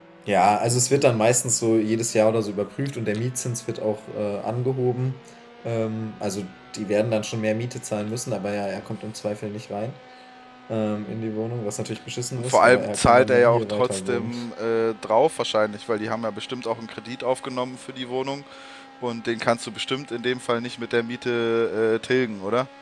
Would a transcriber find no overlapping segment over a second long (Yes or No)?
No